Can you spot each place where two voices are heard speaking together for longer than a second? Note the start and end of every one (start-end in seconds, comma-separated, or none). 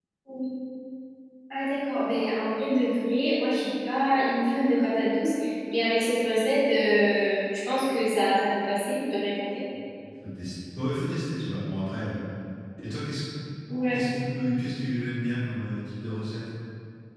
none